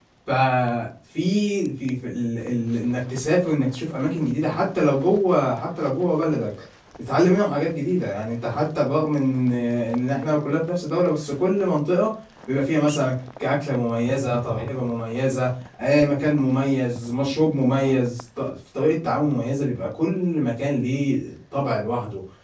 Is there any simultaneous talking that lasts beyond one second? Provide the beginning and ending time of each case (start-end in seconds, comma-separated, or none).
none